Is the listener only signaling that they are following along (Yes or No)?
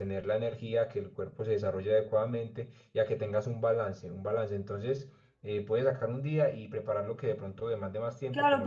No